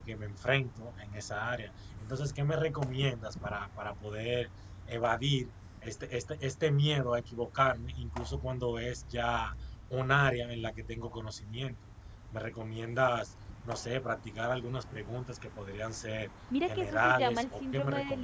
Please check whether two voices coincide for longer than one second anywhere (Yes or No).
Yes